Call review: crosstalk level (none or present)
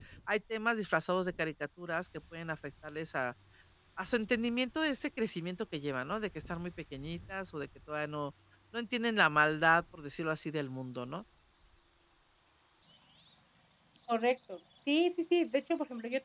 none